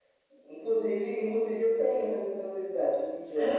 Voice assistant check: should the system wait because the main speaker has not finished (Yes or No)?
No